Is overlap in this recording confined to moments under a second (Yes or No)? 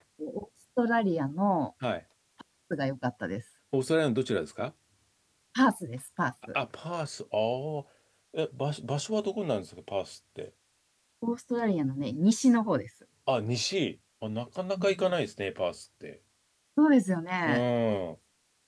Yes